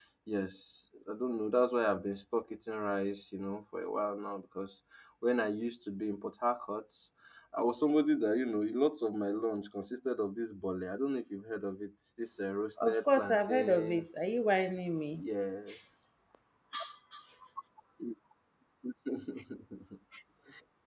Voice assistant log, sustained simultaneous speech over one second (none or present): present